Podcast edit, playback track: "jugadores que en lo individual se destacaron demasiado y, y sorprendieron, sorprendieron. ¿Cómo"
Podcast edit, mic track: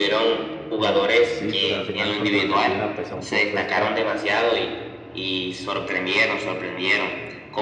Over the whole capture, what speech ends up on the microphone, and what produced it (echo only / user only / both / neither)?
both